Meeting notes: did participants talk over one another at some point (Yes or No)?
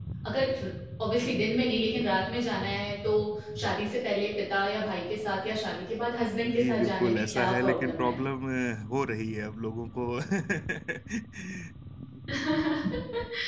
Yes